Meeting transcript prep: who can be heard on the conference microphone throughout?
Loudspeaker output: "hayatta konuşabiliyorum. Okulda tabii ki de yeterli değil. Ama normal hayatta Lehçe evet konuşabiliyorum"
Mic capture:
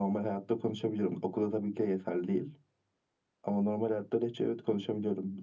echo only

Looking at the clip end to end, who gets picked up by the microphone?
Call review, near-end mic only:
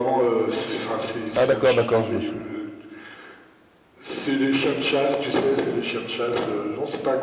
both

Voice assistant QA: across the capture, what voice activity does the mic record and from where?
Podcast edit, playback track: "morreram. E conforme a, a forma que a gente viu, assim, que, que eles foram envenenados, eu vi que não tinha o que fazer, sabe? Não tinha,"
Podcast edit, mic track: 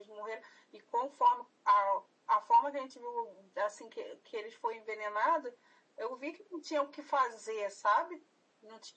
echo only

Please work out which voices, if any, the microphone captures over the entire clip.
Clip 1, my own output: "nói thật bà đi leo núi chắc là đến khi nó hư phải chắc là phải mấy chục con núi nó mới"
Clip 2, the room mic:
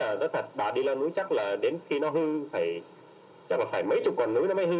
echo only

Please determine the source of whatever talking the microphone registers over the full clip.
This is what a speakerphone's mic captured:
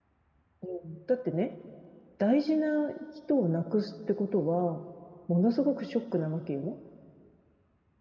user only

